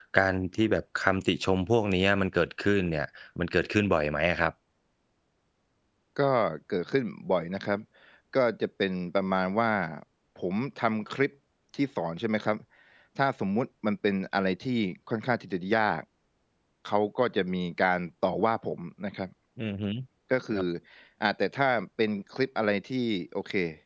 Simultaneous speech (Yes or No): No